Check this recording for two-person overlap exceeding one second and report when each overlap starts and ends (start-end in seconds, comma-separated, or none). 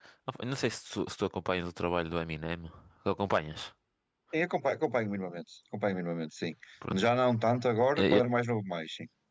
none